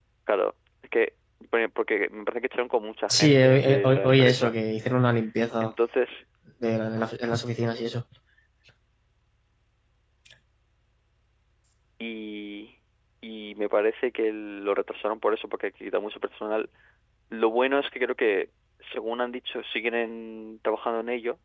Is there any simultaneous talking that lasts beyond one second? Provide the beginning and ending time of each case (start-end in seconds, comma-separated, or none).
3.1-4.5